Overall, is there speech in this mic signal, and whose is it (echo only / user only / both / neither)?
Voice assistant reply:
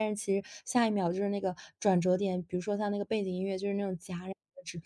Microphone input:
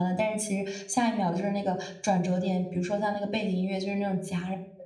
echo only